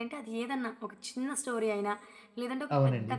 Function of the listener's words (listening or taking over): listening